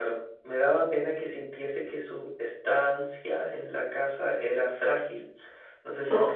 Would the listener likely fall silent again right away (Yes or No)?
Yes